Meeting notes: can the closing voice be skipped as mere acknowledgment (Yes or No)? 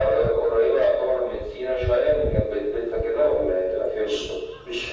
No